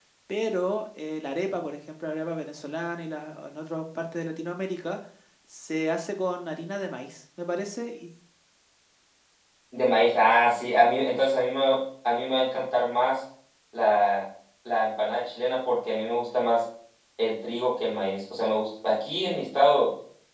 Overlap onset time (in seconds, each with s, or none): none